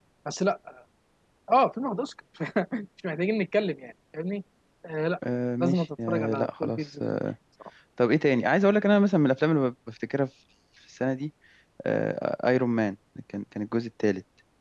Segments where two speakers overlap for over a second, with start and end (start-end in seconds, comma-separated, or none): 5.6-6.8